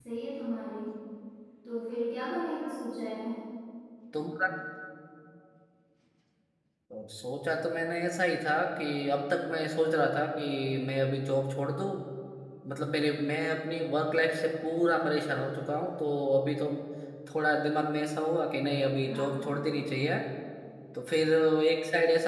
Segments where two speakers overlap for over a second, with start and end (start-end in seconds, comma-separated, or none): none